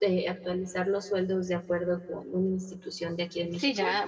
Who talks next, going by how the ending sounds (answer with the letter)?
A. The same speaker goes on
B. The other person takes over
B